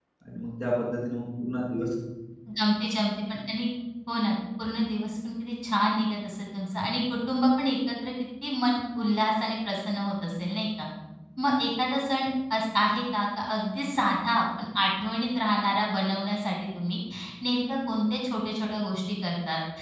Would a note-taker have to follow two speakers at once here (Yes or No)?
No